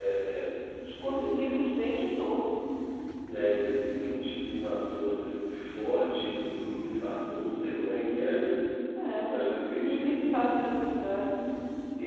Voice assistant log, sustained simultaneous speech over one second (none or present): present